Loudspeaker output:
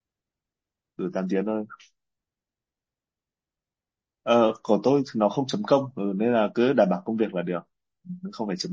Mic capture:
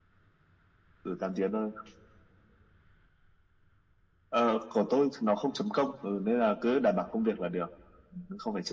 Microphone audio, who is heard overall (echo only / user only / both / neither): echo only